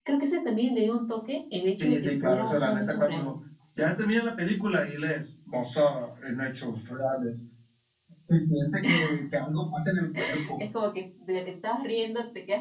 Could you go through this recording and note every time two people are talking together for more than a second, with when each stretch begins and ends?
1.8-3.3

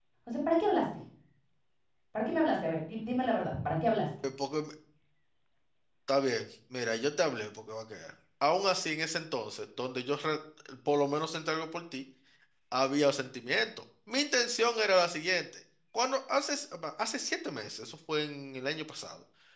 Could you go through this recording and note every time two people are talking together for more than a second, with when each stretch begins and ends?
none

